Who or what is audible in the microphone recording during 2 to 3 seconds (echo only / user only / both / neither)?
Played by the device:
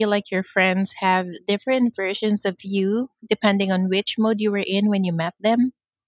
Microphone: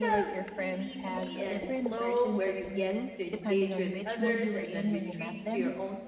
both